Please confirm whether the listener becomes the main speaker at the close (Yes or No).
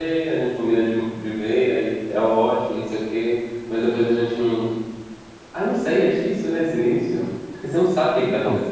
No